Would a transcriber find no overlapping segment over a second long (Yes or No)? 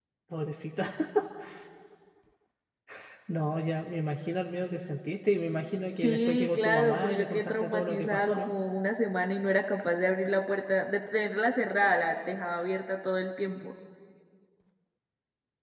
No